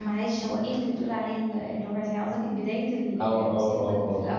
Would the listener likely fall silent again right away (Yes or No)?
No